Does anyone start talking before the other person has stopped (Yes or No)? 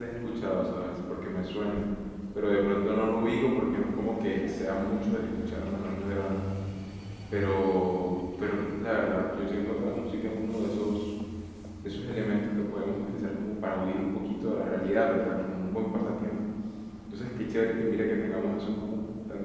No